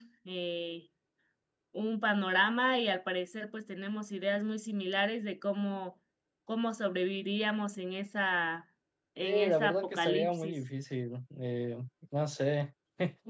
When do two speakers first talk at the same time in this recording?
9.2 s

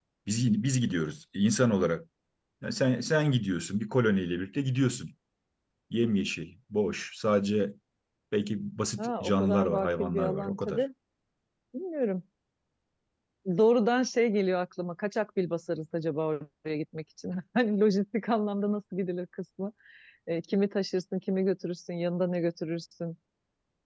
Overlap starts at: 9.0 s

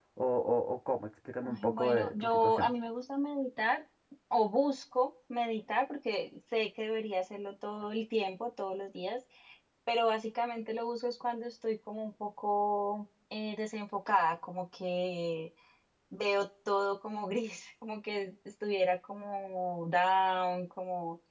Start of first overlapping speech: 1.4 s

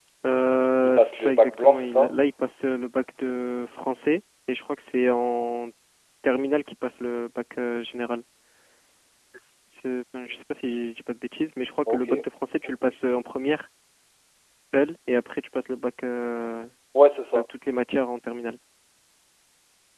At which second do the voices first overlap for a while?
0.8 s

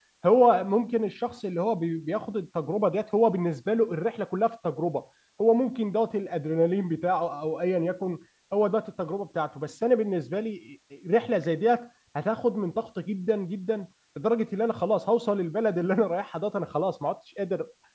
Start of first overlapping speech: none

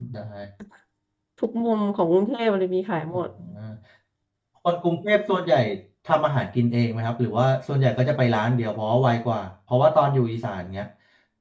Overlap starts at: none

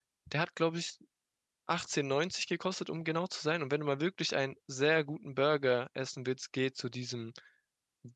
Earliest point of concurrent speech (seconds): none

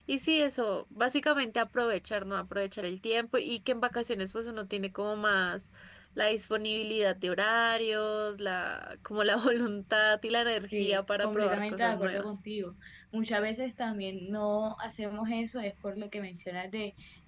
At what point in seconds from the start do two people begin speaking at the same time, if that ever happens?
10.7 s

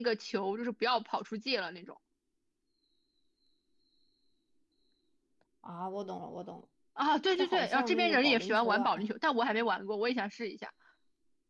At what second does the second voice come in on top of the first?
7.3 s

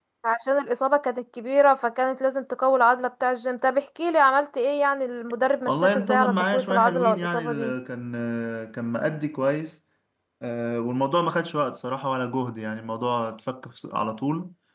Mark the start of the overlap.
5.6 s

